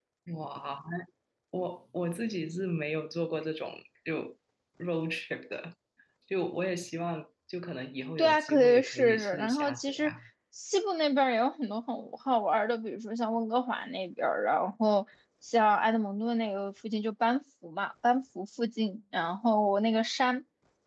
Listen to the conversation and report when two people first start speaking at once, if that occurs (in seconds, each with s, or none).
8.2 s